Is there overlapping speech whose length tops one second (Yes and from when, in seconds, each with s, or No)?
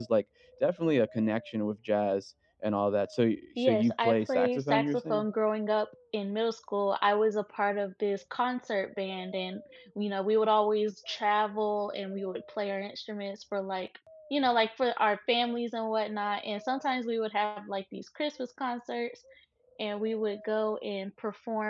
Yes, from 3.6 s